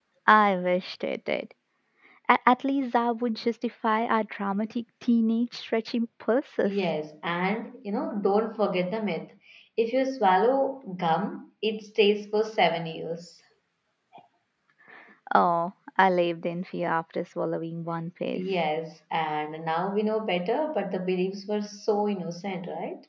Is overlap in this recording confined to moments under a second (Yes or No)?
Yes